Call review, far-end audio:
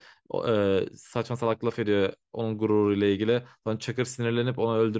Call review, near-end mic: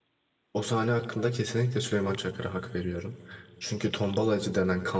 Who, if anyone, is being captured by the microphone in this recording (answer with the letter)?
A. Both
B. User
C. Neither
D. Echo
B